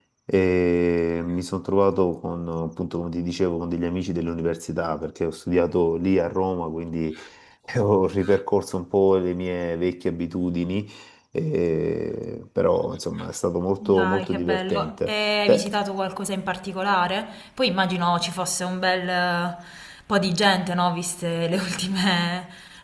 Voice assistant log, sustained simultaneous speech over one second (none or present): present